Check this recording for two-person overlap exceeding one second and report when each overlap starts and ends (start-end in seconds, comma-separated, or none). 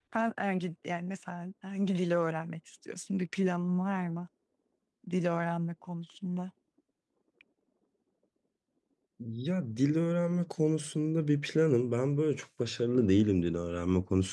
none